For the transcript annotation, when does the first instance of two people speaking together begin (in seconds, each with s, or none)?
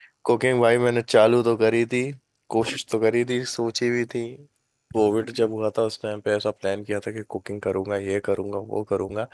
none